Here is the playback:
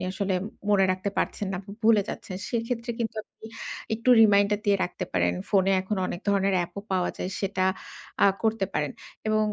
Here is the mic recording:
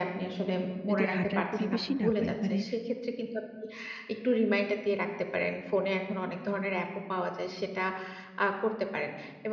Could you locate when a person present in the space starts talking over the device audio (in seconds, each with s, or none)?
0.9 s